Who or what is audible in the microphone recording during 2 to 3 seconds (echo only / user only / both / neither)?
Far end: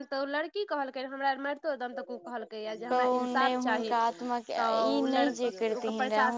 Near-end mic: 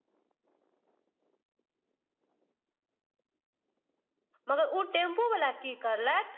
neither